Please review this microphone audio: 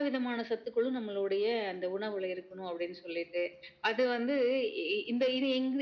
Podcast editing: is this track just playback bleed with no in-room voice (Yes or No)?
Yes